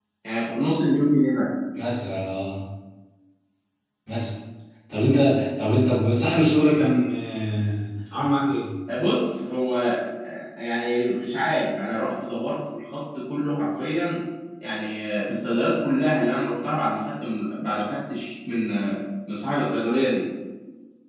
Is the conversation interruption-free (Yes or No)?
Yes